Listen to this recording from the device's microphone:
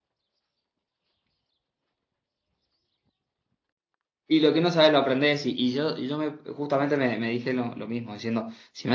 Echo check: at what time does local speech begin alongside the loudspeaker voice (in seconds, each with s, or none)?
4.3 s